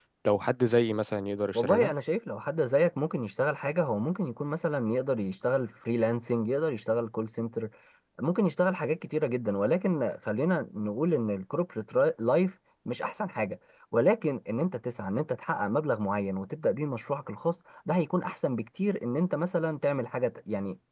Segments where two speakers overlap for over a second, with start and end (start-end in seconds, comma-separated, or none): none